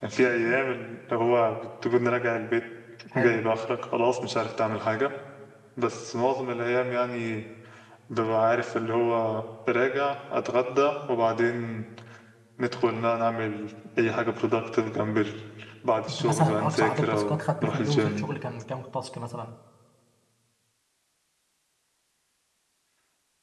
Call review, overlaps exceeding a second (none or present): present